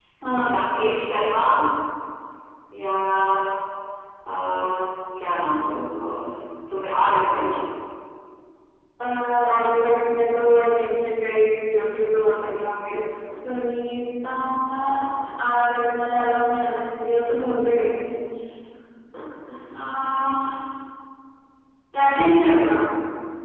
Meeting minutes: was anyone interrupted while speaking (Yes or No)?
No